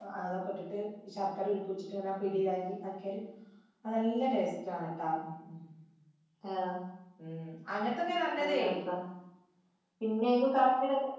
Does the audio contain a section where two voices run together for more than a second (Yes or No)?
No